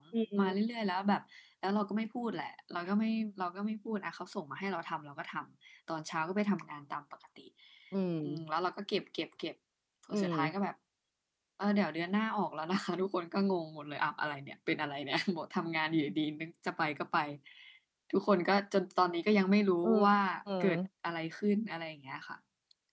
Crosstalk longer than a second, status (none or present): none